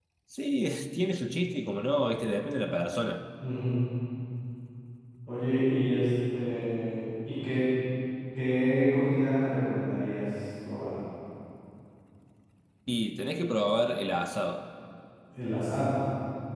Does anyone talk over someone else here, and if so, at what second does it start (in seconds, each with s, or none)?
none